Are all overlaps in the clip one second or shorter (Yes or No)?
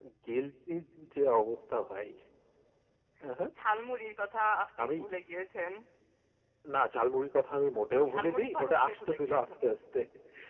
No